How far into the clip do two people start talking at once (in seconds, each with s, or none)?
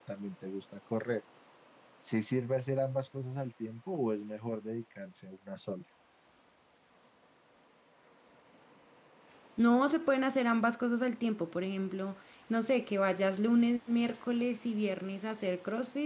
none